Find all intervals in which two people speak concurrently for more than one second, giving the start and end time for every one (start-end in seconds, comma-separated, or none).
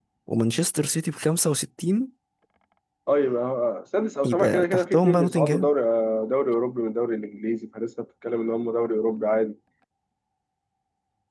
4.2-5.7